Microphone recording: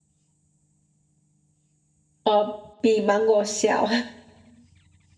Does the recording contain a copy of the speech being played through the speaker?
No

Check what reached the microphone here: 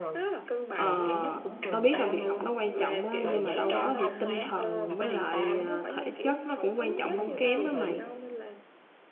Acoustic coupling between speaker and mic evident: Yes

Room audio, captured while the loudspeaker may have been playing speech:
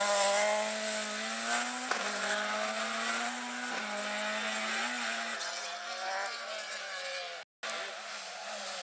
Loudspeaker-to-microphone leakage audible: No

